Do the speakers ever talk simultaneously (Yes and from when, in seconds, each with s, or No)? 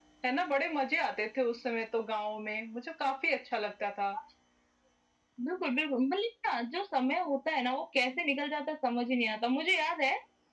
No